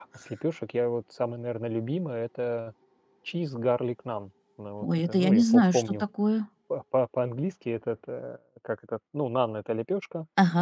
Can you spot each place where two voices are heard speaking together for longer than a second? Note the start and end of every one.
4.8-6.0

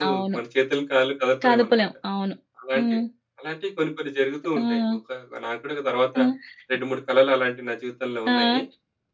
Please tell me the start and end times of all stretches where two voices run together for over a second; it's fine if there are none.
none

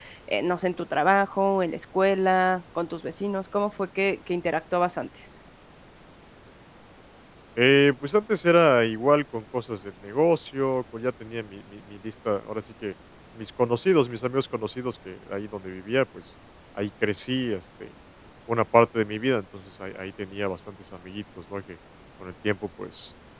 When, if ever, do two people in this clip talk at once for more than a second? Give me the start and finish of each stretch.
none

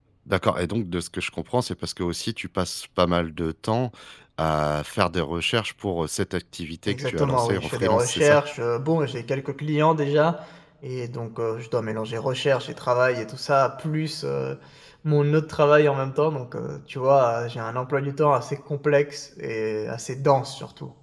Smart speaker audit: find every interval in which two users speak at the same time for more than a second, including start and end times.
6.8-8.4

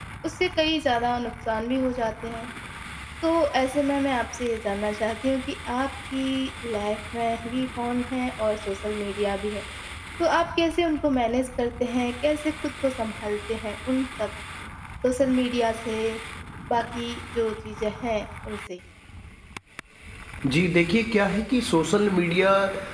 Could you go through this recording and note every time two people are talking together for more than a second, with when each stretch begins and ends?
none

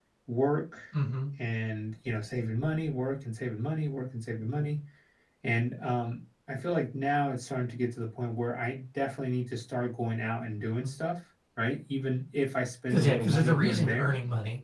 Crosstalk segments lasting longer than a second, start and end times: 12.9-14.1

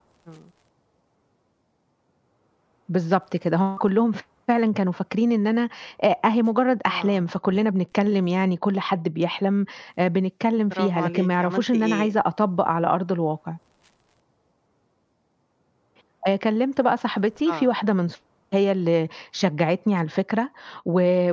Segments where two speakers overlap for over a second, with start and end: 10.7-12.1

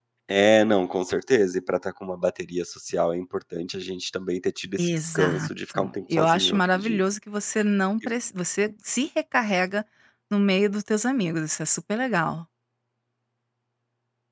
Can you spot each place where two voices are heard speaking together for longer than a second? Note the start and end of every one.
4.8-7.0

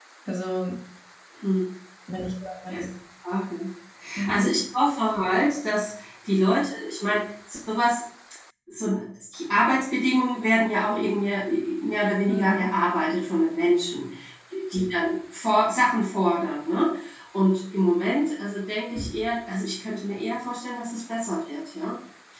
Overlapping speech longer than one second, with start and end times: none

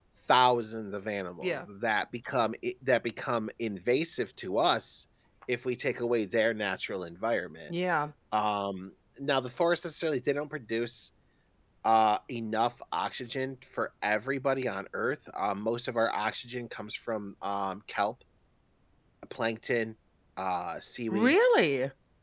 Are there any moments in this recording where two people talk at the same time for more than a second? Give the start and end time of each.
none

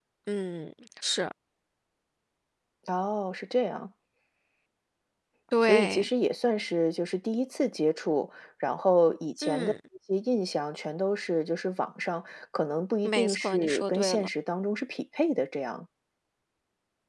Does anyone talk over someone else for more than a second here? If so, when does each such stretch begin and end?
13.0-14.3

